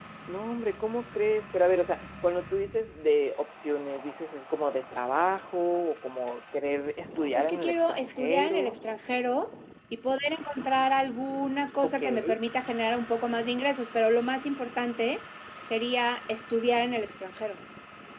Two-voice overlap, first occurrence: 7.3 s

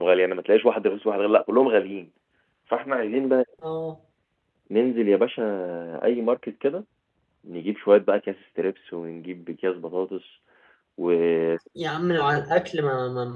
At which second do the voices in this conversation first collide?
none

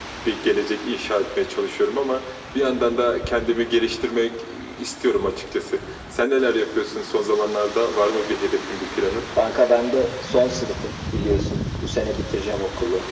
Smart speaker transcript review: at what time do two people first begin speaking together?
none

